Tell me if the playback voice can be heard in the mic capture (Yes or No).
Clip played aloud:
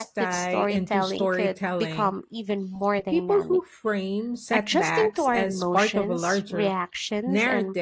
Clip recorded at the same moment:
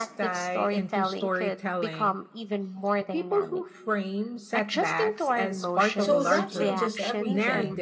Yes